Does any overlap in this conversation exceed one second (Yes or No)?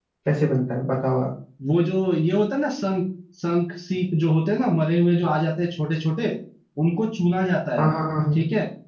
No